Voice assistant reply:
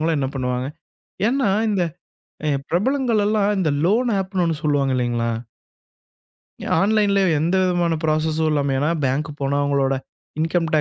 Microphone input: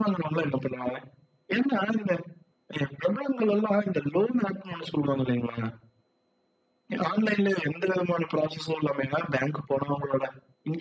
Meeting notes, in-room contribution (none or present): none